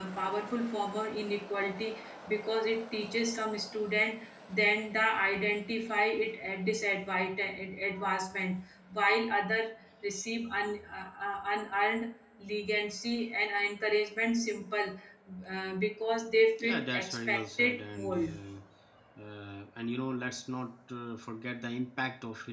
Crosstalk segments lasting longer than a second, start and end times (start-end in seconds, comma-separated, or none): 16.6-18.3